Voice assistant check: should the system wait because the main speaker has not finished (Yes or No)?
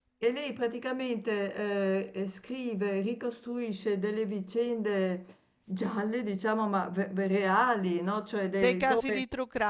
No